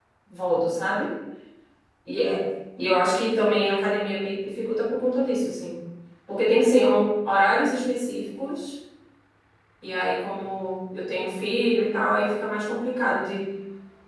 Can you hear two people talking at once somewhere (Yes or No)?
No